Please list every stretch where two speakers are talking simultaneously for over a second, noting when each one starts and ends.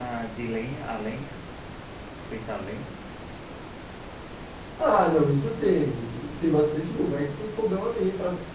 none

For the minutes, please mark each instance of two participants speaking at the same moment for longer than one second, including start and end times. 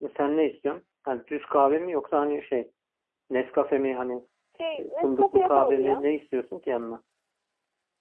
4.8-6.0

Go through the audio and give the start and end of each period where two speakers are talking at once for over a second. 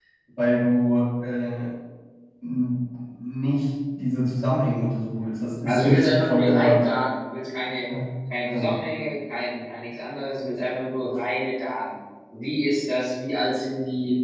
5.6-6.8

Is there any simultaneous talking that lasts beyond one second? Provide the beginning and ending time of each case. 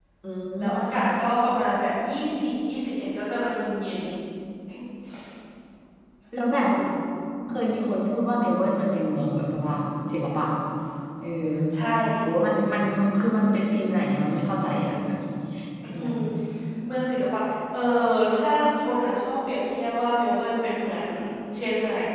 none

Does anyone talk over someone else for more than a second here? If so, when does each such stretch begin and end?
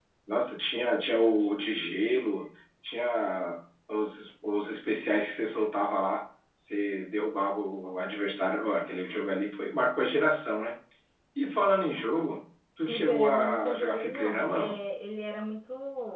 12.8-14.8

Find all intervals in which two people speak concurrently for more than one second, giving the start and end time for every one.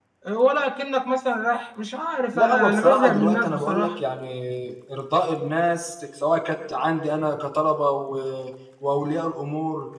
2.3-3.9

